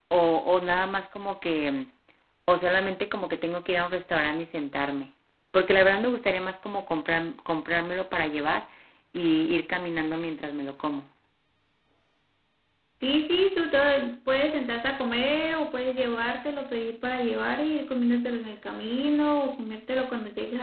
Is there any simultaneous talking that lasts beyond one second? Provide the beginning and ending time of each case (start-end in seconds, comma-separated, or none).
none